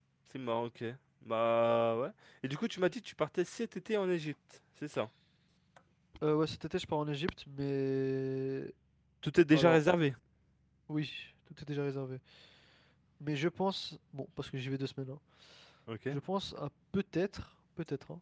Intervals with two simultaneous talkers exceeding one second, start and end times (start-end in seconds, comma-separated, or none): none